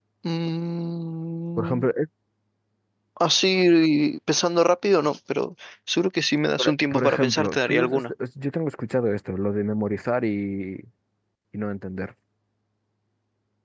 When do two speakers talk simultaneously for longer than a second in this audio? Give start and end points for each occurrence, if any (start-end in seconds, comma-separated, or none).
6.6-8.1